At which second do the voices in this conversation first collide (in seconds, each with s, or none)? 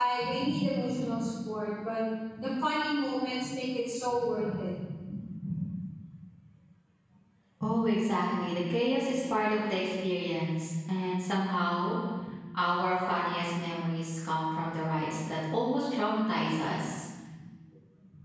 none